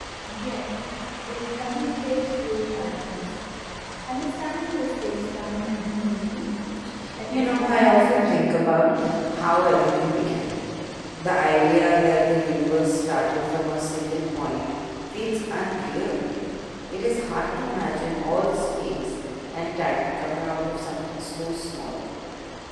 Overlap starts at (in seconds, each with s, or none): 7.3 s